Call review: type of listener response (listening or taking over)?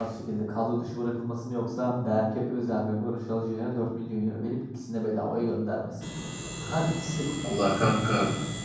taking over